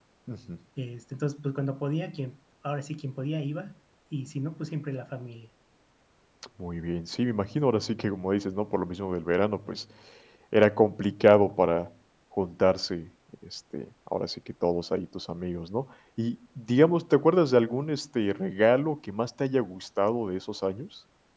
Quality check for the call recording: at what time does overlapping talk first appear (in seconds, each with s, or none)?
none